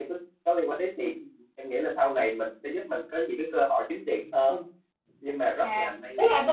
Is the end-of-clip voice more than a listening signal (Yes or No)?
Yes